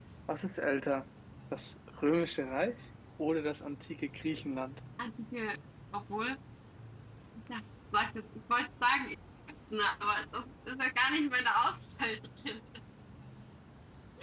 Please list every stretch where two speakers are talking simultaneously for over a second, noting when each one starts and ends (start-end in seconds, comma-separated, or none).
none